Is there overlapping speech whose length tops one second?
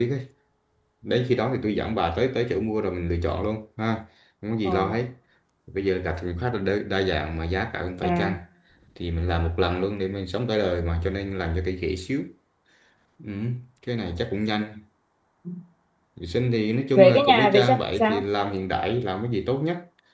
Yes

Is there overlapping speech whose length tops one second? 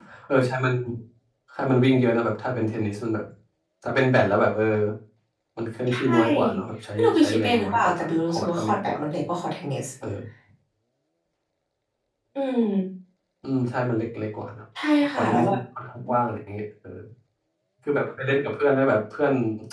Yes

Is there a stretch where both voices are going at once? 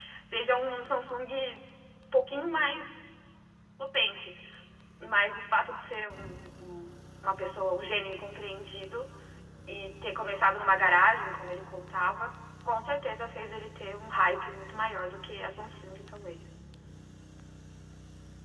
No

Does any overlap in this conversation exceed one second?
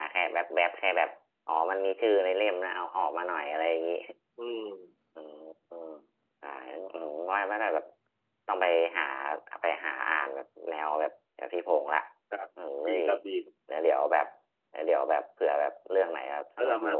No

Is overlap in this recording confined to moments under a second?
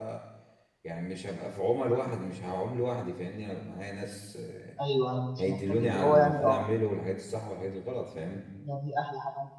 No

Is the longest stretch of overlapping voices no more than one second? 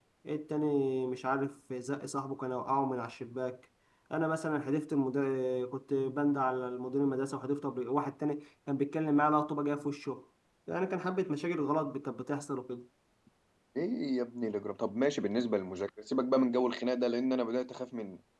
Yes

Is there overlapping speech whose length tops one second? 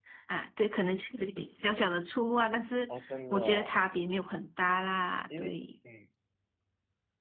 No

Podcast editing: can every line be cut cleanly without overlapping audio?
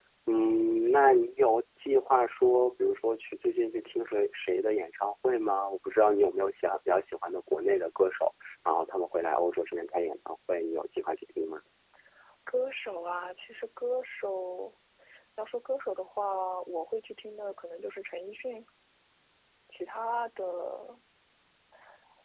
Yes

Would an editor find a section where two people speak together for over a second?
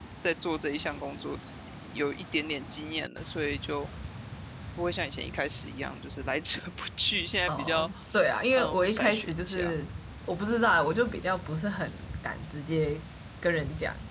Yes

